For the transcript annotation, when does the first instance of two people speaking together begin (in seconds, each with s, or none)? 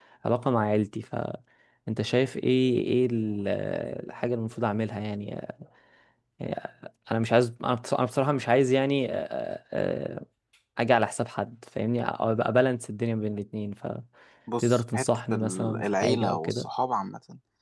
14.5 s